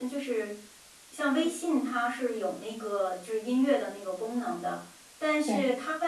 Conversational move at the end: listening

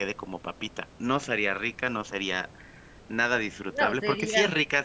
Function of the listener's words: listening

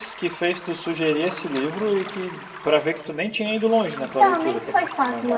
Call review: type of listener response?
taking over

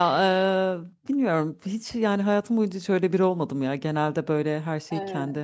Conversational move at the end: listening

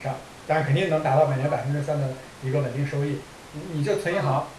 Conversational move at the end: listening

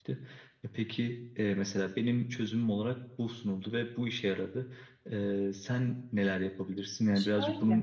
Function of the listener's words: taking over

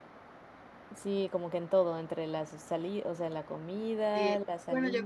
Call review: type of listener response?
taking over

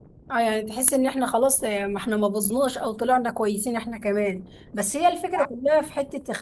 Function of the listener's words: listening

